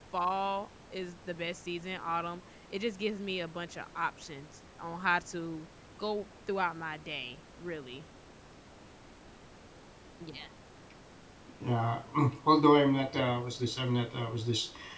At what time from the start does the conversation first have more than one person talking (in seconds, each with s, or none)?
none